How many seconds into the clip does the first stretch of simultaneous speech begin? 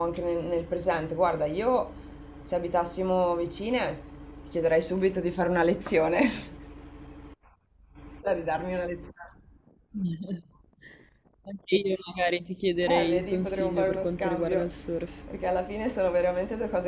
12.9 s

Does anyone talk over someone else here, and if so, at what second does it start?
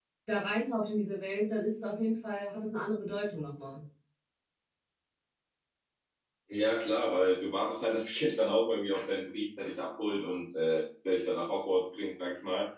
none

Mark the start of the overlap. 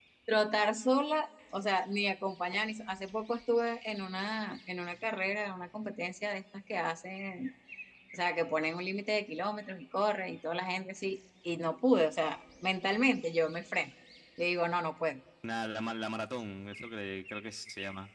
none

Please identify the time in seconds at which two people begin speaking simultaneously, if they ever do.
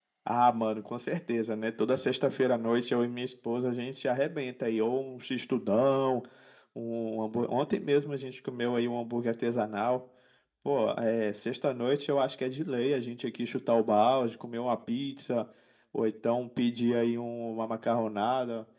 none

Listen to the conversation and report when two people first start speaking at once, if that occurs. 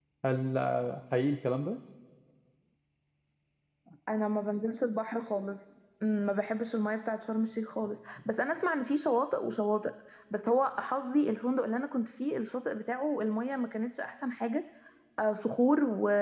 none

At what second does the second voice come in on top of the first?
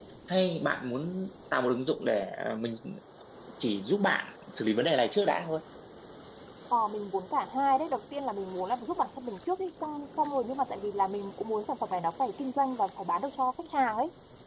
none

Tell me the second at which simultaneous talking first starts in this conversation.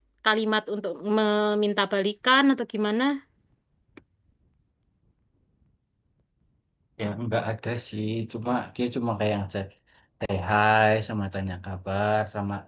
none

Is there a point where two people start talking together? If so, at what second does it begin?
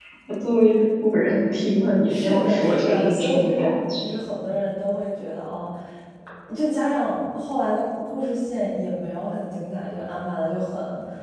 2.1 s

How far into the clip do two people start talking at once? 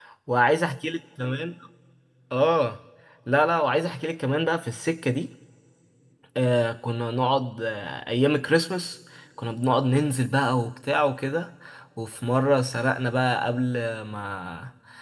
none

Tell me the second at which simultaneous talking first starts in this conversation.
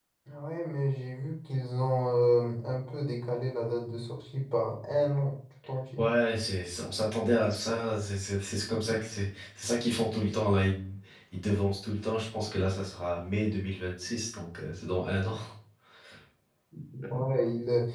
none

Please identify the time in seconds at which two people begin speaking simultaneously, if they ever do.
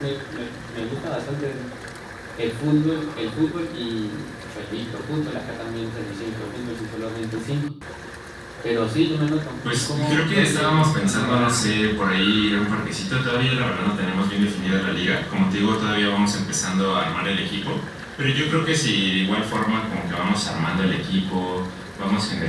9.6 s

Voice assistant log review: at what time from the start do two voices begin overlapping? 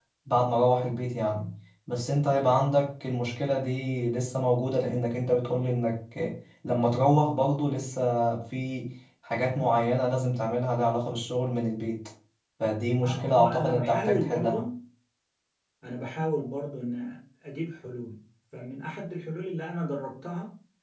13.0 s

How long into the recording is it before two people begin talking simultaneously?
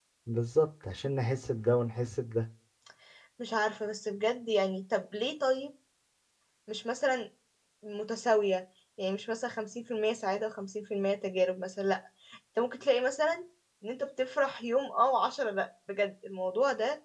none

